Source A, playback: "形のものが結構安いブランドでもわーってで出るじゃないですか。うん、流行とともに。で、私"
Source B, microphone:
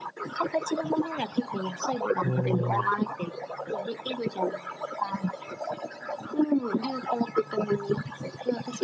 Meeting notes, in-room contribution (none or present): present